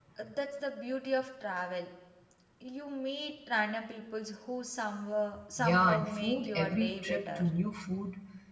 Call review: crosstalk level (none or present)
present